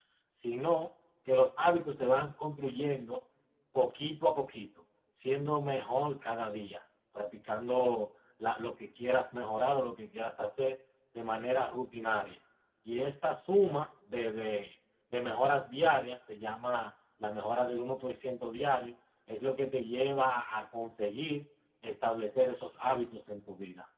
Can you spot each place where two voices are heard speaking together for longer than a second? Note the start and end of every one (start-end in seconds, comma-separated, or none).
none